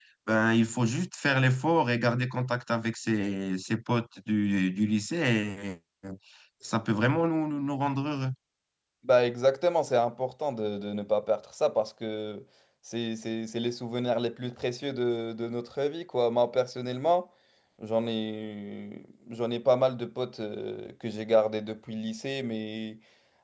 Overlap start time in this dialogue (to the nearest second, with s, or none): none